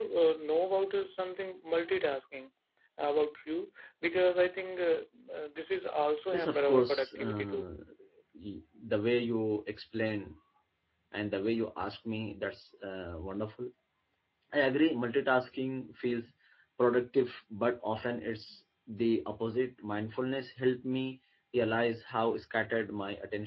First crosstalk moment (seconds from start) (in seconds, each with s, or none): 6.3 s